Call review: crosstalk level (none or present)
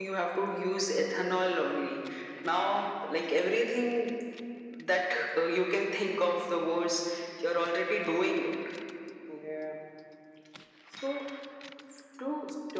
none